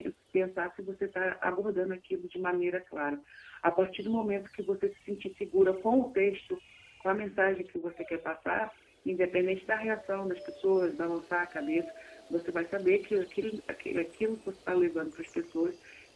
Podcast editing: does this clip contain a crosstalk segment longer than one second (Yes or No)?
No